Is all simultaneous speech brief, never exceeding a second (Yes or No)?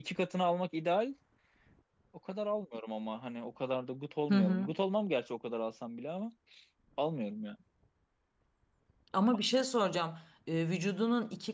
Yes